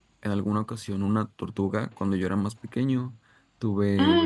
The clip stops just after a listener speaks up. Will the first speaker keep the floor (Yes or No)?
Yes